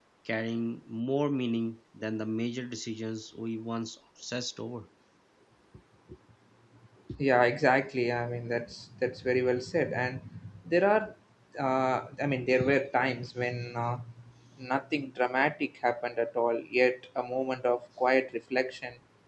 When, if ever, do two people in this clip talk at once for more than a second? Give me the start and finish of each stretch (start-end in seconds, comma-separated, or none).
none